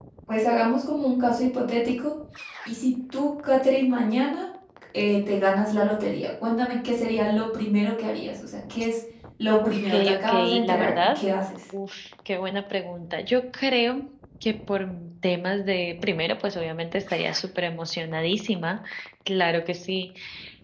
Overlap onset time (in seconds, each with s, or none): 9.6 s